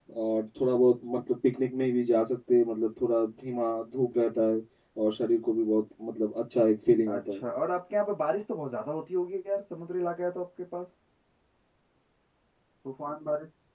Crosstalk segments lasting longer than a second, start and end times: none

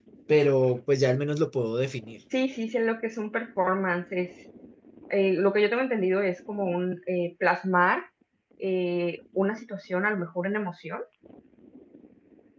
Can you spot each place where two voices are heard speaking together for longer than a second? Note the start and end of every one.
none

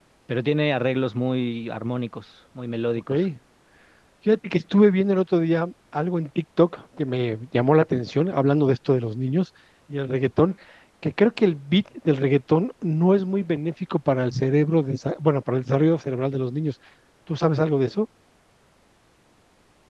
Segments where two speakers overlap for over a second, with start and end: none

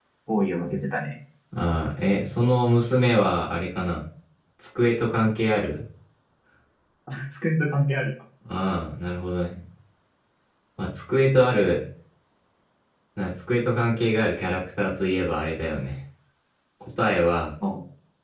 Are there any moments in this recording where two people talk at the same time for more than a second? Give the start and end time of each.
none

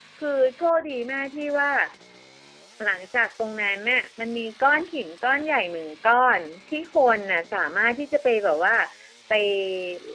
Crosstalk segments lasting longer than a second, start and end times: none

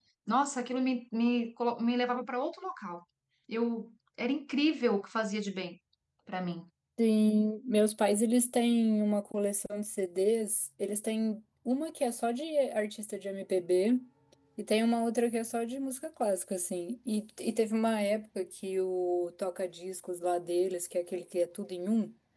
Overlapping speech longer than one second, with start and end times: none

